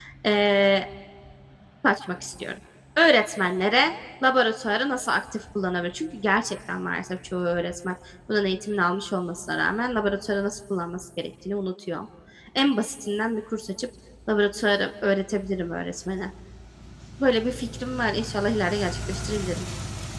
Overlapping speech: No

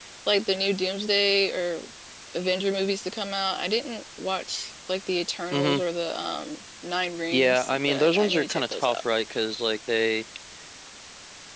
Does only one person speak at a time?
No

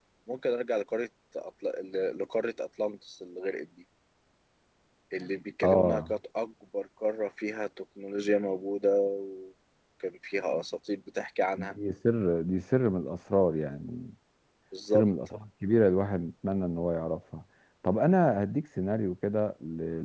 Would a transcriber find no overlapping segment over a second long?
Yes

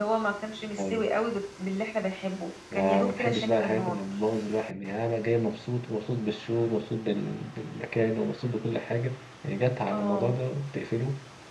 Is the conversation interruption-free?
No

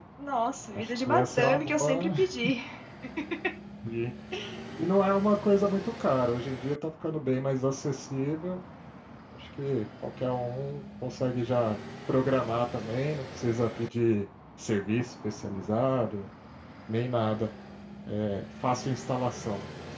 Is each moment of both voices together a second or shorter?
No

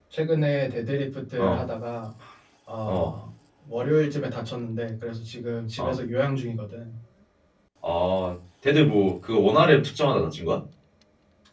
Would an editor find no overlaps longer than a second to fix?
Yes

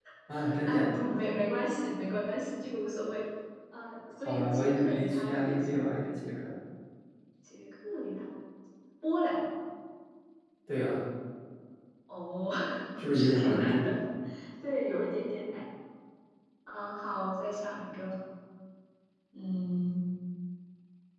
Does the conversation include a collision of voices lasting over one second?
Yes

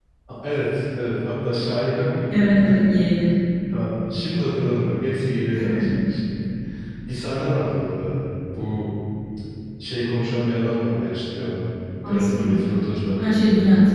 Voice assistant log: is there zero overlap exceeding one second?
Yes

